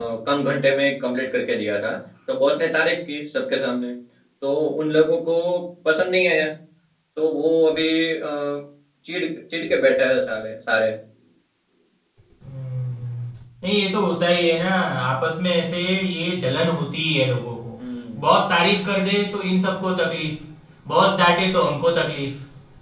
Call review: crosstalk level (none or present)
none